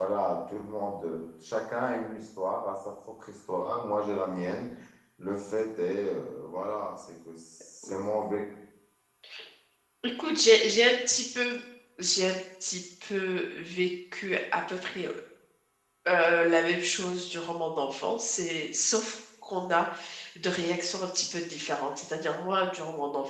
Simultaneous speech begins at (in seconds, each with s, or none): none